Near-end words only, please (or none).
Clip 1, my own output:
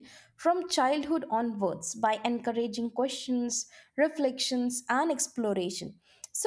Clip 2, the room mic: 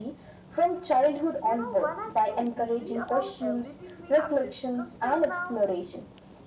You know, when I think deeply about everything we have discussed till now,